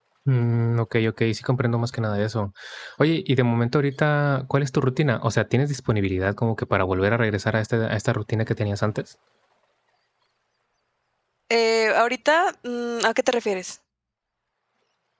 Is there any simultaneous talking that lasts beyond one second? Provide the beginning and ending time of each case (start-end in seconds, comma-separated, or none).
none